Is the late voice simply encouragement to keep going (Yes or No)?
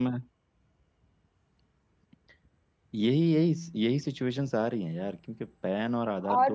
No